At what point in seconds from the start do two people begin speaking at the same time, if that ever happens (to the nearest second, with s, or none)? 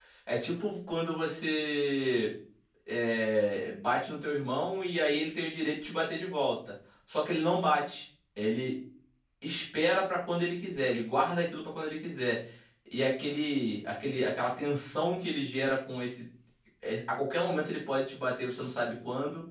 none